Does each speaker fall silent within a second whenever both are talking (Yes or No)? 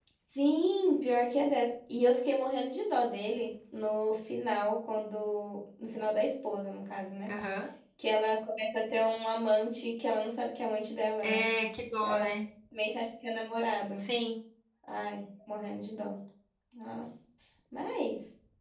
Yes